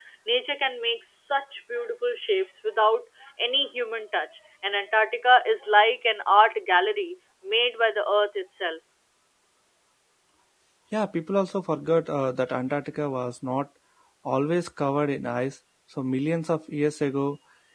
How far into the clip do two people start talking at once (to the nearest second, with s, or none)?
none